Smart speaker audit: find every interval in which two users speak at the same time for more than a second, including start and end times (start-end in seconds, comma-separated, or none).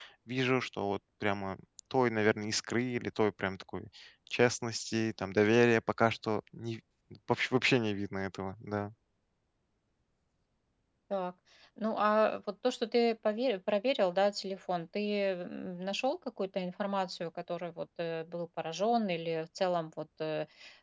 none